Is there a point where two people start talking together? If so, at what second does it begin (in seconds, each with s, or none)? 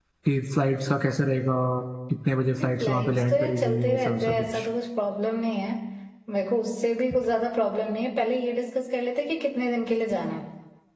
2.8 s